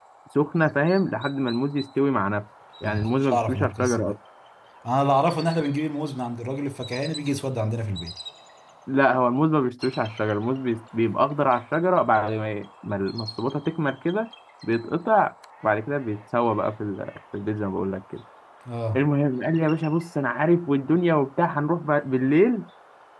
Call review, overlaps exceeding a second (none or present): present